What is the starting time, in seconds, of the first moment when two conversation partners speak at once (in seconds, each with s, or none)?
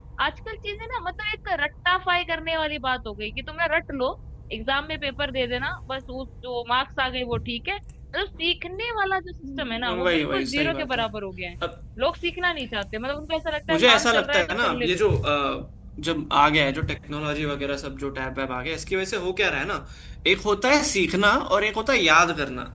9.6 s